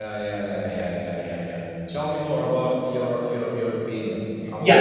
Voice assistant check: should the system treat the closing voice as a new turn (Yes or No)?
Yes